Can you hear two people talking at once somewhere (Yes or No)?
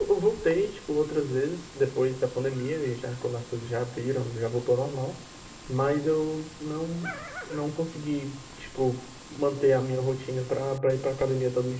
No